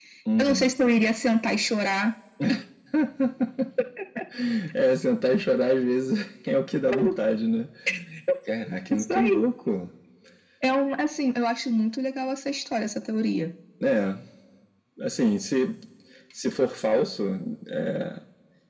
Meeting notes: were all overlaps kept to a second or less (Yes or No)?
Yes